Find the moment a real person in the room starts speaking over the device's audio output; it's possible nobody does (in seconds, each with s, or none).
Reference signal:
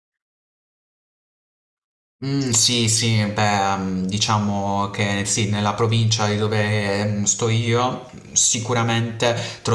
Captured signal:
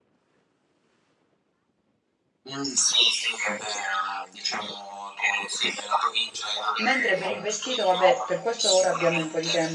6.8 s